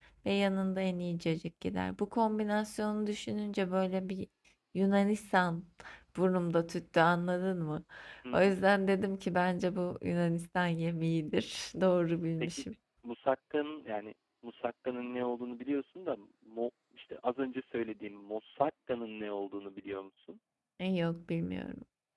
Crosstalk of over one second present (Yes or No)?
No